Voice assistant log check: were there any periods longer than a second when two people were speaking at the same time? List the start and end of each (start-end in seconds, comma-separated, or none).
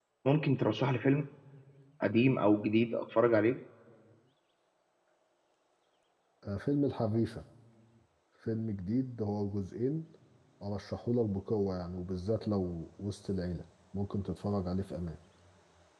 none